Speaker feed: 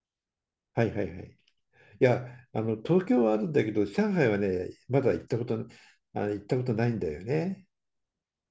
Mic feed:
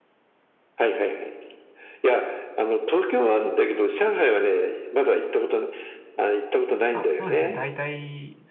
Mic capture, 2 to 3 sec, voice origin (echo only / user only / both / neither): echo only